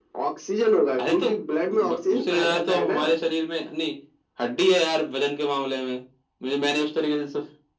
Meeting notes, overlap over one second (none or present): present